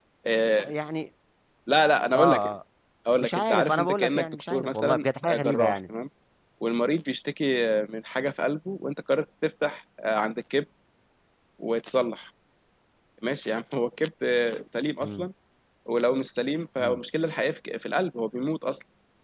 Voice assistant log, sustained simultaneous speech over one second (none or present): present